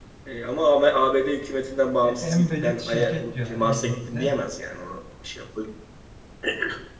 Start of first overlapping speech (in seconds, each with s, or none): 2.0 s